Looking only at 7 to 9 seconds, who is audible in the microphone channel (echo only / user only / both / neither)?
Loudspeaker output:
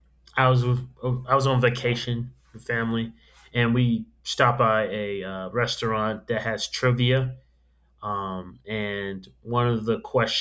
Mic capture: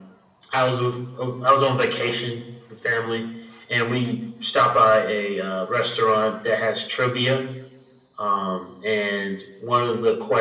echo only